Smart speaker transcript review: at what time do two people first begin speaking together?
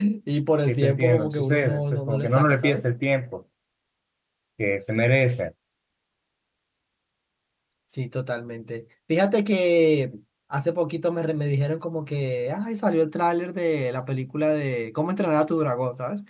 0.7 s

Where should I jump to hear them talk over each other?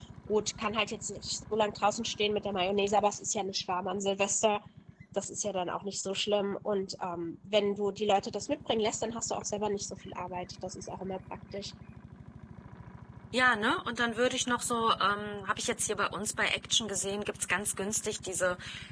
none

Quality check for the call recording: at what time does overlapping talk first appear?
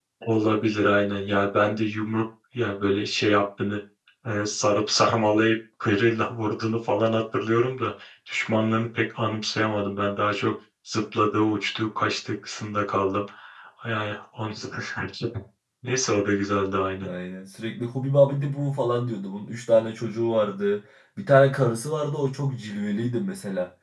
none

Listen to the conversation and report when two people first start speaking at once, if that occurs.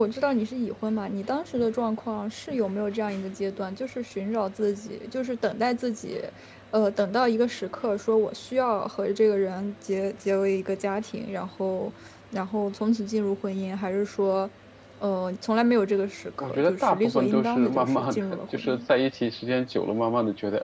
16.4 s

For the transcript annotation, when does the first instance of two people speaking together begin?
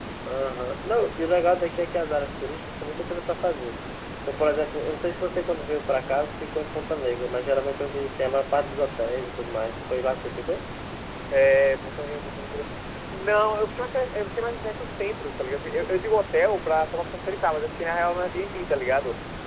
none

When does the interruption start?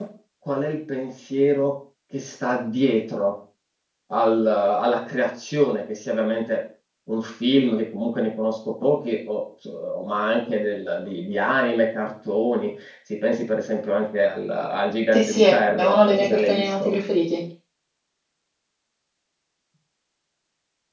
15.1 s

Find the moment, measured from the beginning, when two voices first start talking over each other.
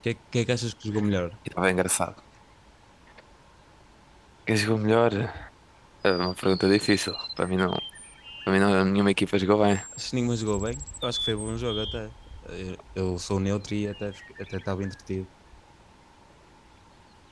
none

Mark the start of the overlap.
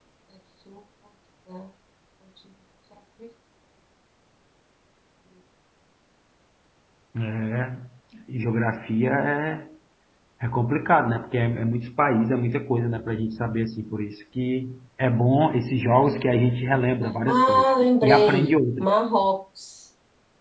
17.0 s

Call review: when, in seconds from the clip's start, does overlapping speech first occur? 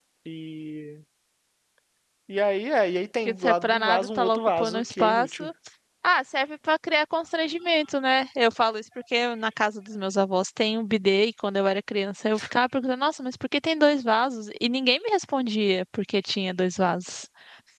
3.2 s

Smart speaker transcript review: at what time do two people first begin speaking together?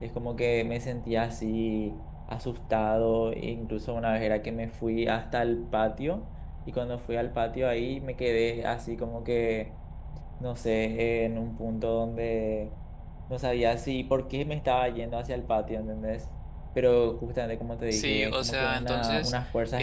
17.9 s

